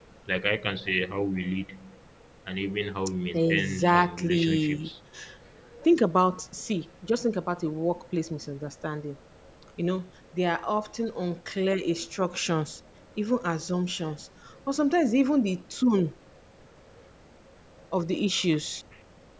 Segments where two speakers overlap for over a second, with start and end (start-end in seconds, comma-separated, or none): 3.5-4.9